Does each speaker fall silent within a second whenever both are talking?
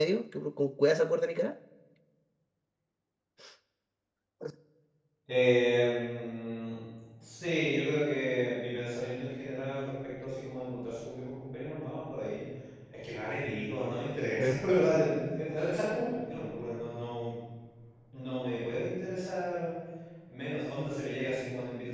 Yes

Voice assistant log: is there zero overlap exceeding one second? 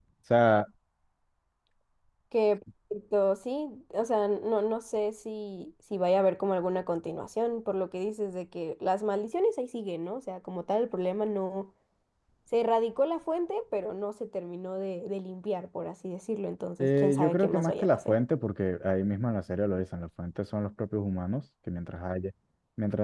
No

